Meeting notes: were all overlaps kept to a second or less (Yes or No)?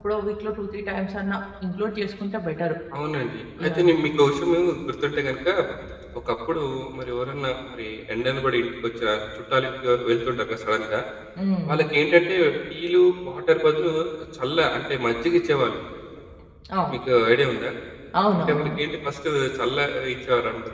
Yes